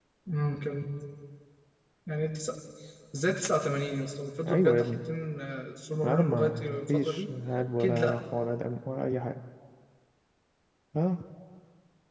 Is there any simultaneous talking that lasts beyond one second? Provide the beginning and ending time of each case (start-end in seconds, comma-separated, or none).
6.0-7.3